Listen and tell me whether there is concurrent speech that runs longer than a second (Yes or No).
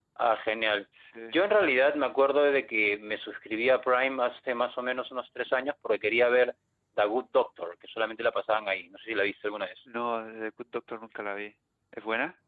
No